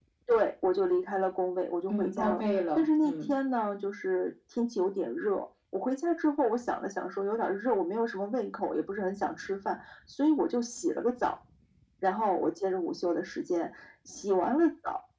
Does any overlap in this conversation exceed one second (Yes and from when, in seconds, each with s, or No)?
Yes, from 1.9 s